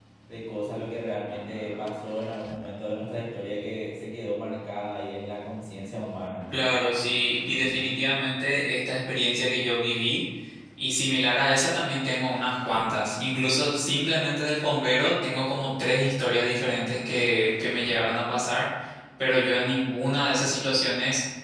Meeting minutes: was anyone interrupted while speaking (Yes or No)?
No